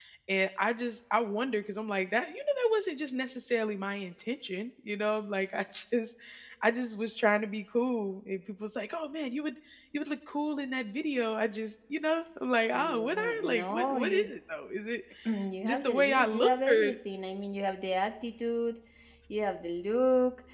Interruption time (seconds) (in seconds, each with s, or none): 12.7 s